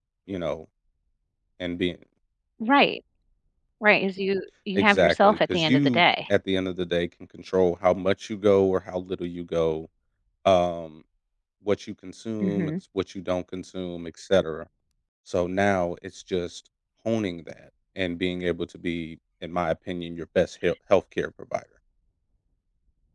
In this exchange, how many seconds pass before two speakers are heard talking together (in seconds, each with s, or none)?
4.8 s